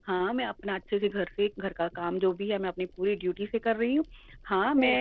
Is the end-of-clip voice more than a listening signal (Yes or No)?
No